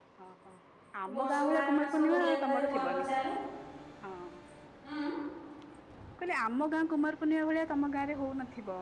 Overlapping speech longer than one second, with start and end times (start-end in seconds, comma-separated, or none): 1.0-3.1